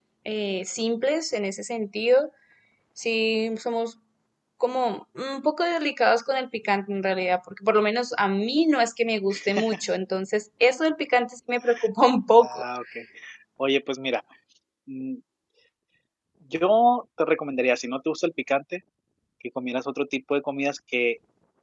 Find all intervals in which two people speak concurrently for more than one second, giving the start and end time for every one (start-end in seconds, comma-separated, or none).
none